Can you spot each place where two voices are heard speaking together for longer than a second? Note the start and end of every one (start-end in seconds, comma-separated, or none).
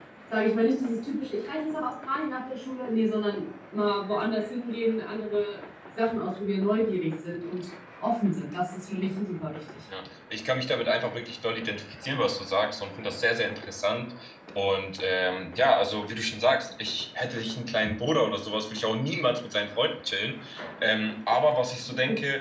none